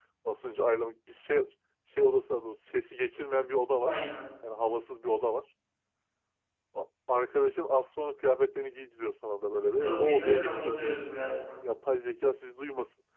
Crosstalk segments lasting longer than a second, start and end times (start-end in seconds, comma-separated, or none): 9.8-11.1